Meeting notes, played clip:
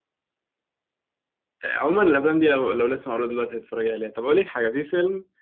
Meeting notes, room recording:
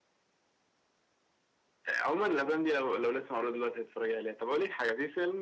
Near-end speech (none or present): none